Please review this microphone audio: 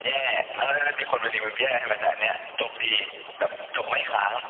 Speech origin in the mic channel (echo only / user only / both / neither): echo only